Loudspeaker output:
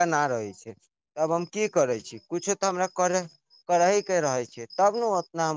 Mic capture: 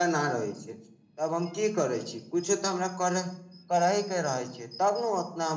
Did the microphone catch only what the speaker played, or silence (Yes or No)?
Yes